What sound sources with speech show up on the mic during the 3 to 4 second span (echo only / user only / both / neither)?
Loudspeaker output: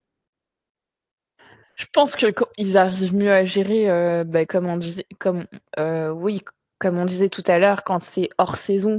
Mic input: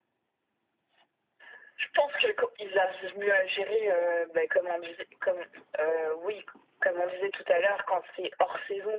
echo only